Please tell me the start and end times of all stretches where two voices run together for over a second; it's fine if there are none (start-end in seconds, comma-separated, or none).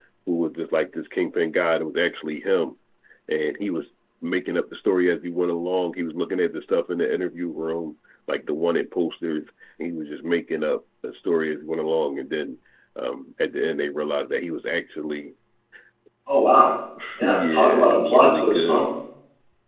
17.3-18.8